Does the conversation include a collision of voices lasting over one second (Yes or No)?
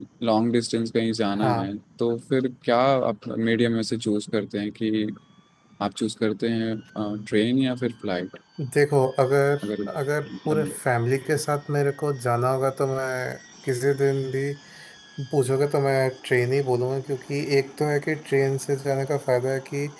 No